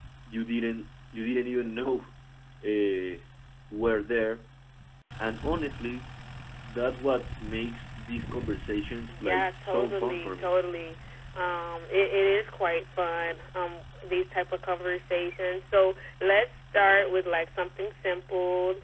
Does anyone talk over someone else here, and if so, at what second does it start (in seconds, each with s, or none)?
9.2 s